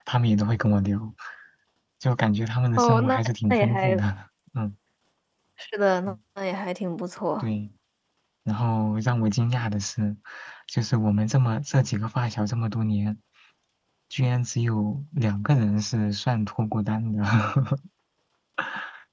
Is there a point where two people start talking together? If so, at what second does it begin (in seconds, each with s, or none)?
2.8 s